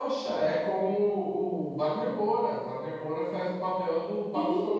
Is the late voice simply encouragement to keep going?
No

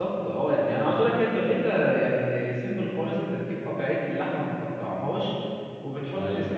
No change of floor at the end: Yes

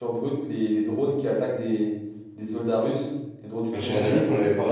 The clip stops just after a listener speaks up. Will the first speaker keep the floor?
No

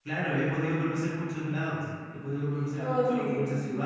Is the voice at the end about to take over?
No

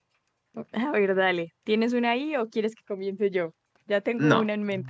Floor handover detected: Yes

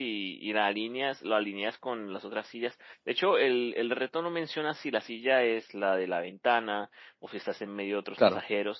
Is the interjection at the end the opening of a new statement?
No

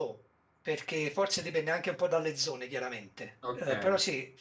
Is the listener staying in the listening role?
Yes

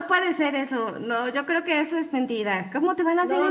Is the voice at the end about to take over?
Yes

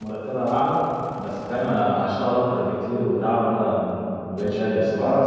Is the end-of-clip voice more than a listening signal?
Yes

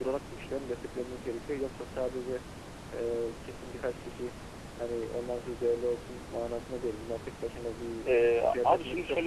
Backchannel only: No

